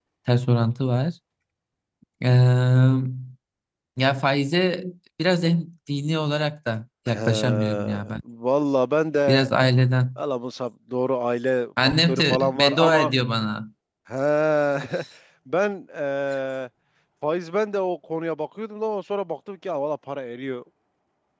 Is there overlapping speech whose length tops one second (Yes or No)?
Yes